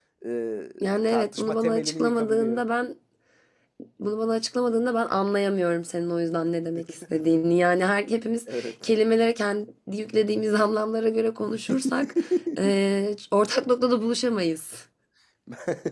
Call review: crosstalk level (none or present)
present